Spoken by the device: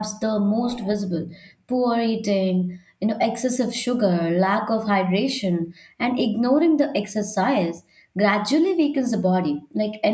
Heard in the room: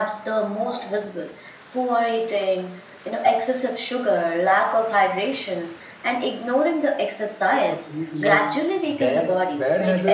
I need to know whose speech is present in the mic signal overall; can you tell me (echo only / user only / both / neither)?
both